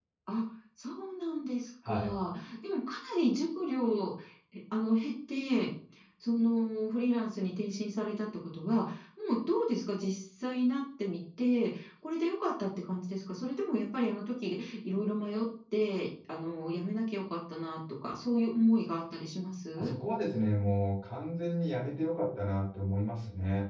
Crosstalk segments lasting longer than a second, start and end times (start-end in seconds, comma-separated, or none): none